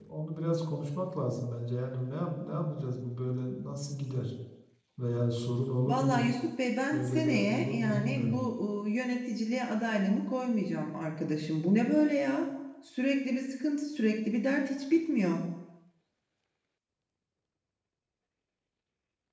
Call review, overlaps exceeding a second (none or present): present